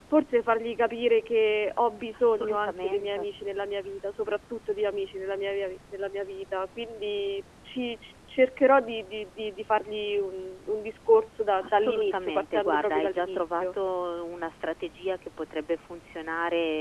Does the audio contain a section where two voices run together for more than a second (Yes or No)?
Yes